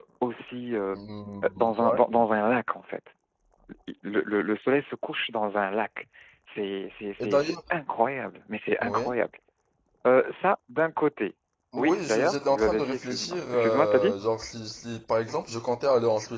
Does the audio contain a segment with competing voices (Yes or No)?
Yes